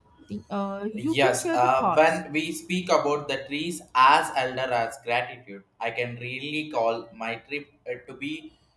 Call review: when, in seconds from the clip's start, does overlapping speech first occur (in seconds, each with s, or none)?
0.9 s